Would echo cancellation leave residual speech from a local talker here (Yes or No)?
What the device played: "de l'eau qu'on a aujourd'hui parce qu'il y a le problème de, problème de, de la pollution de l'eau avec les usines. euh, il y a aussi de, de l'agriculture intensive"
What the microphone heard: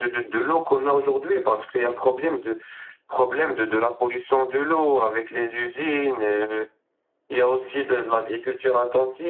No